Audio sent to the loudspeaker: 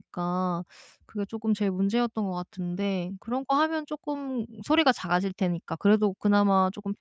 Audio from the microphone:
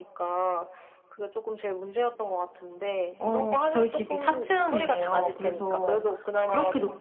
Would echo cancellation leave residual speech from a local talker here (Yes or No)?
Yes